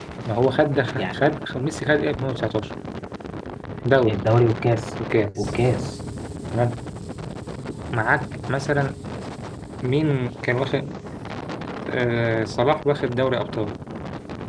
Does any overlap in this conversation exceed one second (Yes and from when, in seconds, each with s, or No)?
No